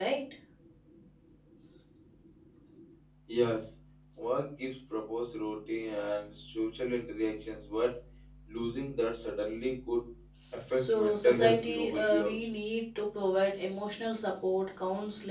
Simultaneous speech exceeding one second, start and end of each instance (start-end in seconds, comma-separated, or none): 10.8-12.5